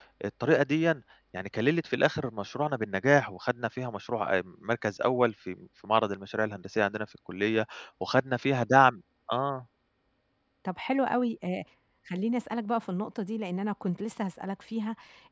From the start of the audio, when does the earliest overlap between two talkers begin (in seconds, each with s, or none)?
none